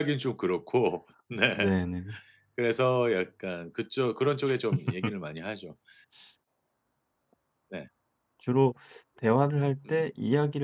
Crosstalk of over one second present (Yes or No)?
No